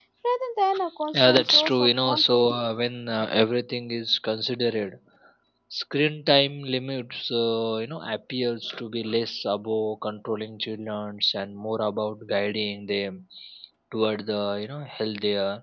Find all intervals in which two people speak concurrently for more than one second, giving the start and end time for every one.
1.2-2.5

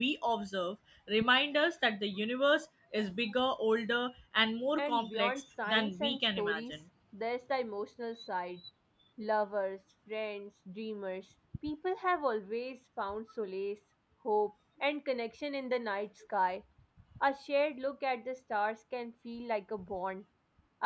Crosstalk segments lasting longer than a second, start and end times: 4.8-6.7

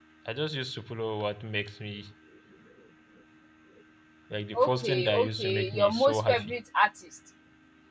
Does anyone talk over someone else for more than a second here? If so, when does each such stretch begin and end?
4.5-6.5

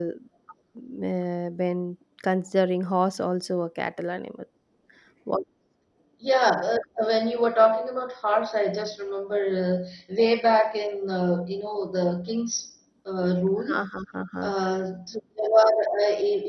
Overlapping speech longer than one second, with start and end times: none

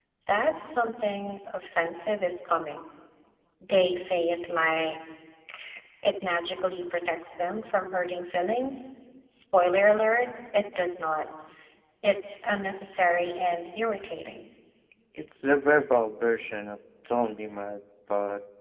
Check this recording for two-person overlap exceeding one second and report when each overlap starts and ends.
none

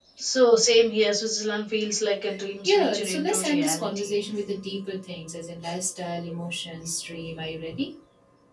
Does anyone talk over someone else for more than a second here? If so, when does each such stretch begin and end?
2.6-4.2

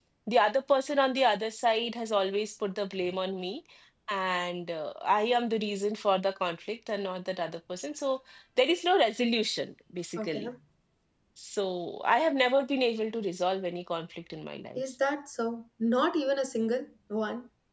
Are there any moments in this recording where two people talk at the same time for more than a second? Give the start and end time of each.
none

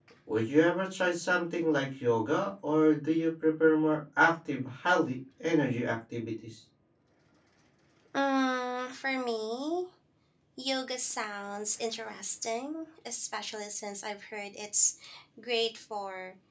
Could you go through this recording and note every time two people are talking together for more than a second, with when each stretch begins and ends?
none

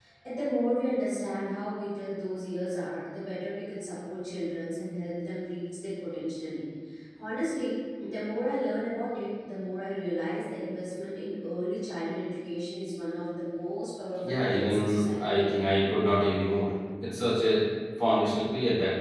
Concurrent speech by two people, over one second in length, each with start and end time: 14.2-15.7

